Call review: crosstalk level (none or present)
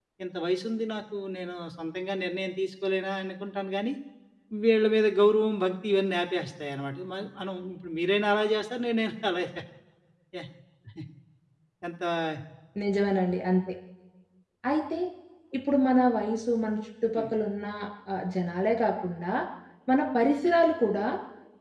none